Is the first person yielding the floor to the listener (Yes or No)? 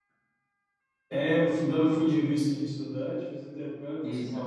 No